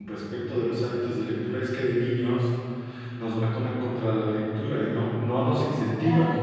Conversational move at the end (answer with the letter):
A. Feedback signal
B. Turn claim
A